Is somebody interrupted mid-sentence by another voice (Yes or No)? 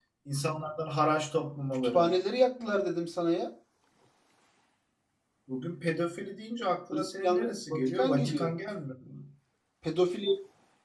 Yes